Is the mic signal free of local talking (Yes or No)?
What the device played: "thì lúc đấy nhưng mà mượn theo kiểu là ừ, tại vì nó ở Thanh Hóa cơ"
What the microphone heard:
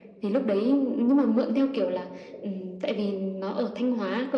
Yes